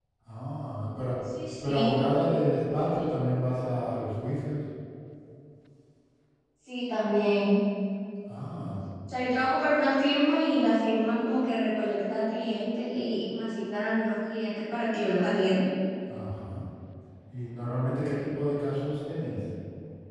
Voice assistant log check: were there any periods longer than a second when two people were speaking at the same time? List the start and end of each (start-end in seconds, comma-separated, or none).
none